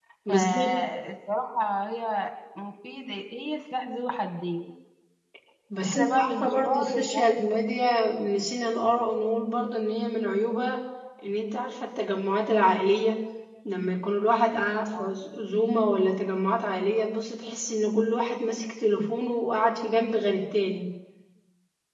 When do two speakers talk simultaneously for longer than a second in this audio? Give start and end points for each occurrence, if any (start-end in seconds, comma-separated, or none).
5.8-7.4